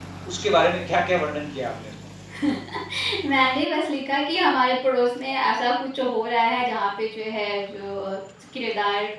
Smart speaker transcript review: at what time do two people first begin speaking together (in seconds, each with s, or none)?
none